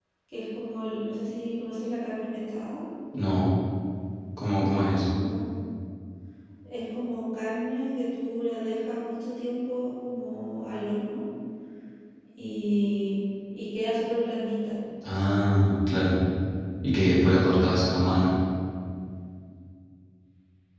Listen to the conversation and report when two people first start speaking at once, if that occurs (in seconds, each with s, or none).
none